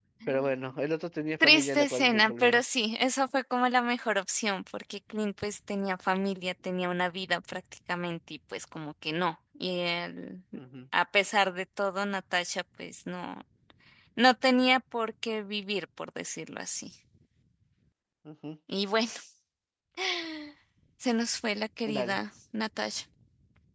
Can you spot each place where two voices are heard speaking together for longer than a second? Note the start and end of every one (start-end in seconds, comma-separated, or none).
1.4-2.6